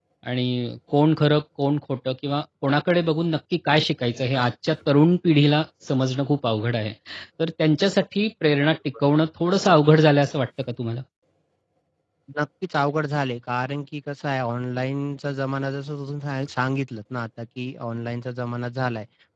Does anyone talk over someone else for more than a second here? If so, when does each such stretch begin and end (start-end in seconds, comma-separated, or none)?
none